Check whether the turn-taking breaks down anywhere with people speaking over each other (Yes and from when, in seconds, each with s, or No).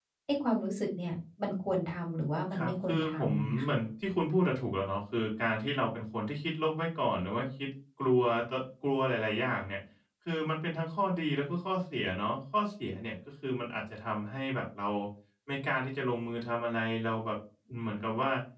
Yes, from 2.5 s